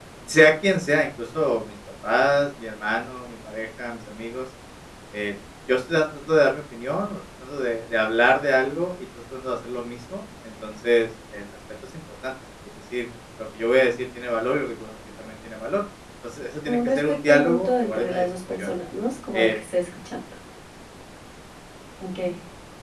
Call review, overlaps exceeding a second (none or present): present